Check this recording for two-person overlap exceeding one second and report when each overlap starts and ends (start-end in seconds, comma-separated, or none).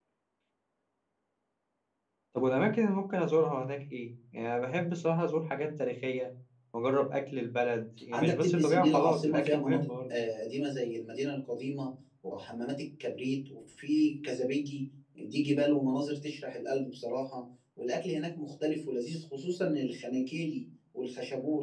8.1-10.2